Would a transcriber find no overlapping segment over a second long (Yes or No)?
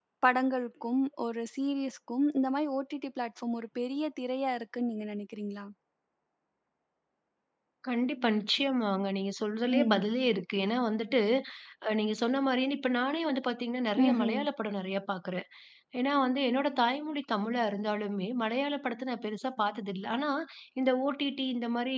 Yes